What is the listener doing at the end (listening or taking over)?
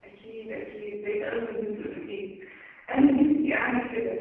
listening